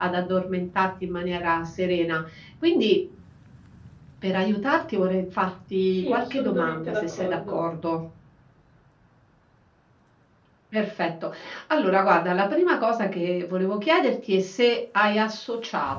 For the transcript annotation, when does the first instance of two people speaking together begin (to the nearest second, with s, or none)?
6 s